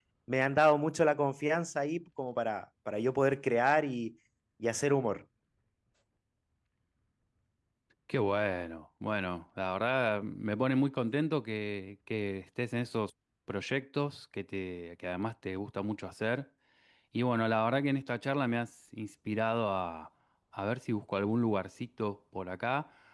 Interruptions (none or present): none